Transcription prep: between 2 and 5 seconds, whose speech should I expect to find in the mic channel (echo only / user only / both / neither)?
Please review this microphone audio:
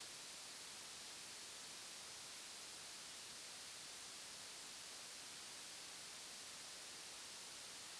neither